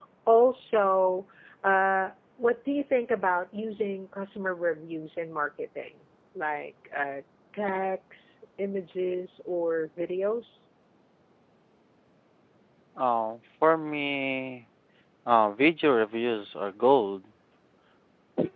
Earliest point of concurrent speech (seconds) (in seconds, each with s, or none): none